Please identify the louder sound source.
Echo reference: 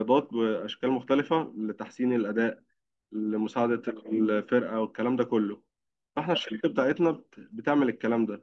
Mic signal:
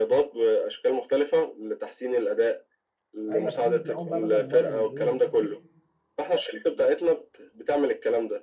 echo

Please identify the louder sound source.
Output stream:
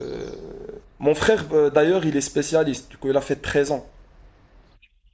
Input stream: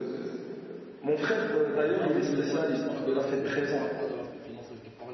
echo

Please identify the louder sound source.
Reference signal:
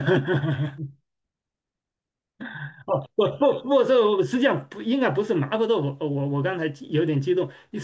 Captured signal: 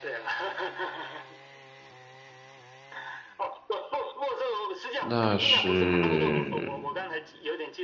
user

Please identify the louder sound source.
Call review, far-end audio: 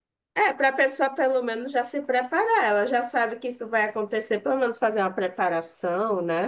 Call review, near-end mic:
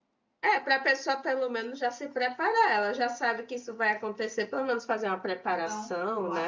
echo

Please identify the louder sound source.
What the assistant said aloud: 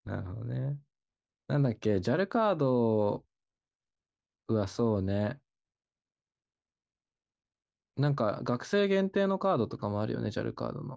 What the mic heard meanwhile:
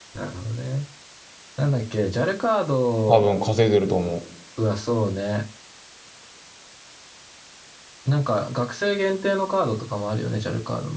user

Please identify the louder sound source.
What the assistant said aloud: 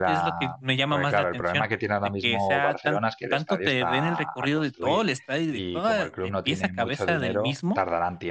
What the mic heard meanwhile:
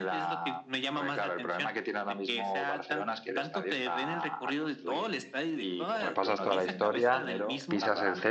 user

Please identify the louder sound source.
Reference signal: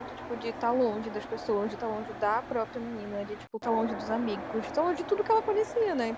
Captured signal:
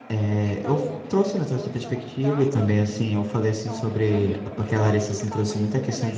user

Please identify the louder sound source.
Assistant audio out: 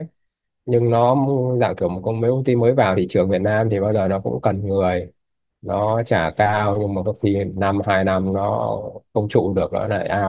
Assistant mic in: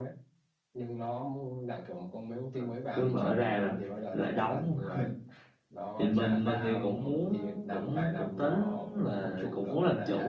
user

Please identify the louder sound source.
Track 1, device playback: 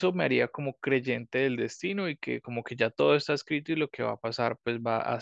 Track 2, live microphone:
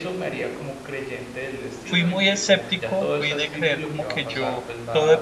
user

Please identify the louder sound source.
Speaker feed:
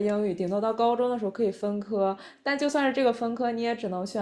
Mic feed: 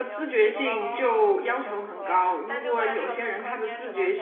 user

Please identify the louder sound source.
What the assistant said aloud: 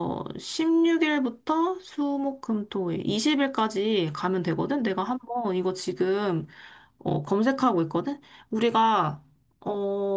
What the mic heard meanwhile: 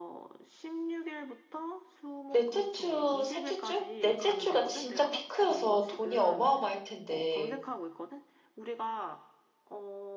user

